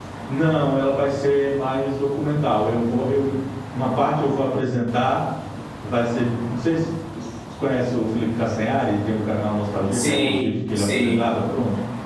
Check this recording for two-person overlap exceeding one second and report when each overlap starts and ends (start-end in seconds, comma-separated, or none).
9.9-11.3